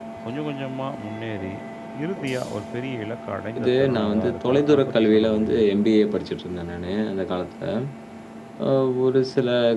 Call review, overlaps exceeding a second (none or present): present